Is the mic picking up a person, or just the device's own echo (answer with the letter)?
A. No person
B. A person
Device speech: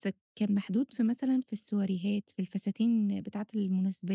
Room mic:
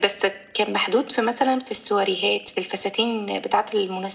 A